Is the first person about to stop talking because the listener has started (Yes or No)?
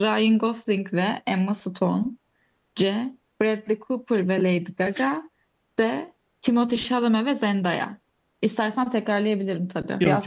Yes